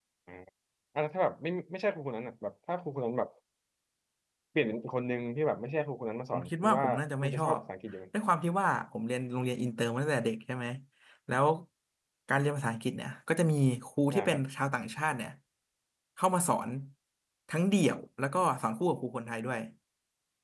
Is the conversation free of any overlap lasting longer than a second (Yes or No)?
No